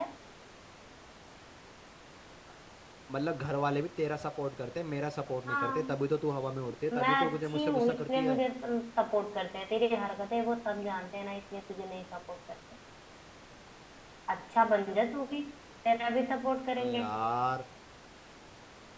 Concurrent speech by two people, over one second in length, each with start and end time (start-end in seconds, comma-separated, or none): 6.9-8.4